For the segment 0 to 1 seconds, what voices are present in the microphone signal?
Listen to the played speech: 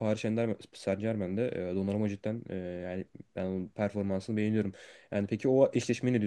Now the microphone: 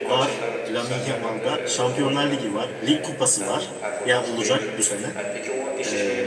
both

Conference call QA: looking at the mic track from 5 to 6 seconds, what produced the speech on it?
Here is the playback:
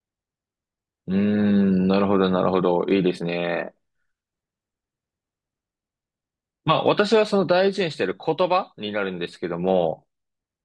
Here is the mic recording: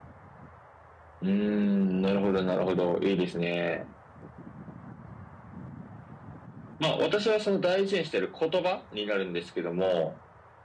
neither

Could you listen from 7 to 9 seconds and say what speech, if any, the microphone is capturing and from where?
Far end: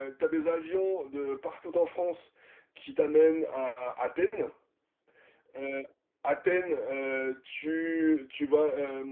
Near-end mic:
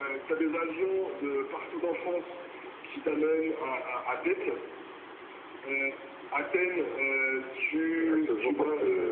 both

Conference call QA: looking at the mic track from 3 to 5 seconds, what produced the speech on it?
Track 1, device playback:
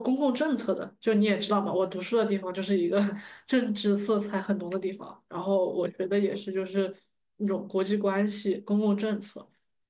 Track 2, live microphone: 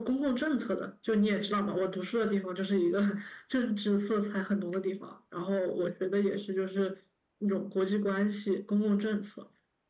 echo only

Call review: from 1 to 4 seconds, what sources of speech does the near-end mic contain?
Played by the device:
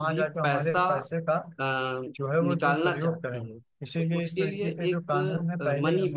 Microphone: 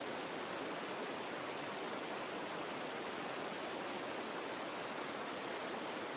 neither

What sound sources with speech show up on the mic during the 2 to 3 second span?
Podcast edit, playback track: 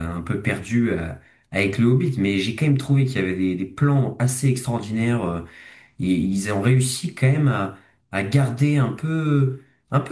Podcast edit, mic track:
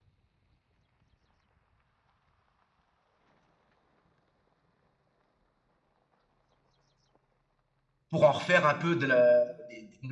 neither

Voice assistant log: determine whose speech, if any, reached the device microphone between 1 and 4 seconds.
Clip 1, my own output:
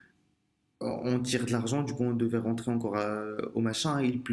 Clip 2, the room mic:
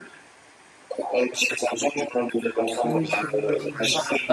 both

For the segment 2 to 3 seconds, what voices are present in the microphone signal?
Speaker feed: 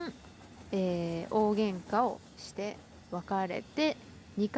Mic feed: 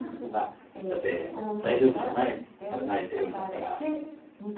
both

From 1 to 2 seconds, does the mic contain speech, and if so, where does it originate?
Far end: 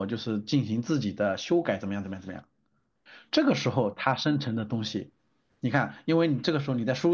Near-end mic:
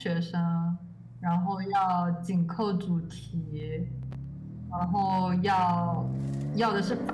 user only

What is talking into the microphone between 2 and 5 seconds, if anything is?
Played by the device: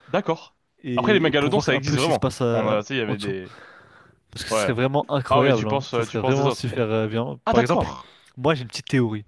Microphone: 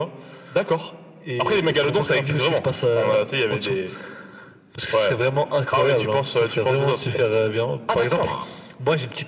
echo only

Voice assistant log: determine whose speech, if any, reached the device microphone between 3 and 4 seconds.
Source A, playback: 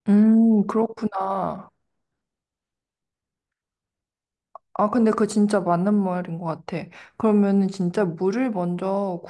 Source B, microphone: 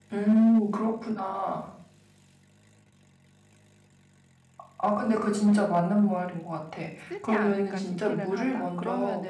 neither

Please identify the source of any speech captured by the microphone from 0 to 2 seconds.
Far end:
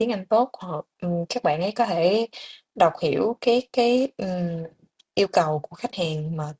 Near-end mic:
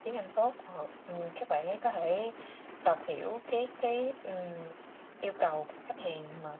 echo only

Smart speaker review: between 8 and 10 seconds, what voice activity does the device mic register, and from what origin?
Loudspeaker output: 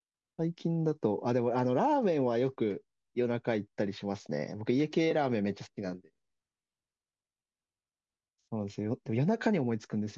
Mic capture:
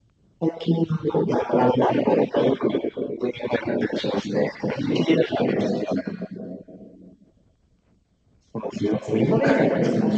both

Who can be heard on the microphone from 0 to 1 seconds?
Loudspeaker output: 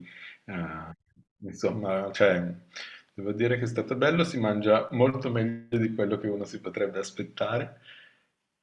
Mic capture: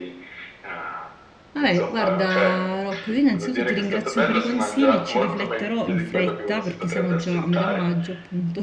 echo only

